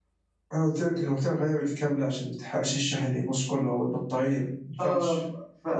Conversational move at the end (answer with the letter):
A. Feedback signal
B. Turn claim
B